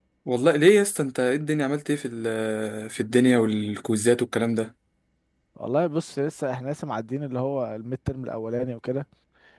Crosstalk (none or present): none